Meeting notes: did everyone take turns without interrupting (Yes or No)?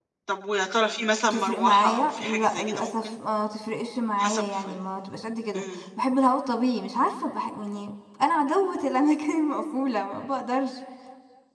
No